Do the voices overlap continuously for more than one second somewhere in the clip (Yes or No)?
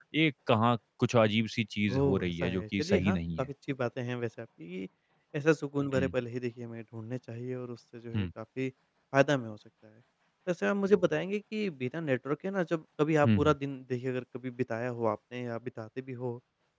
Yes